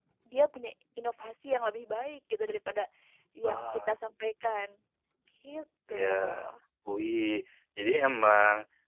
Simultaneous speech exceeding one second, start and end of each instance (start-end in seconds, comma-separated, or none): none